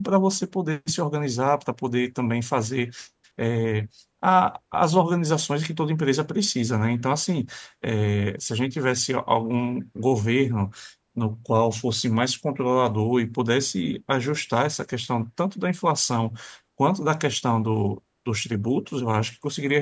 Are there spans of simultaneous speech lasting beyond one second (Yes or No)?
No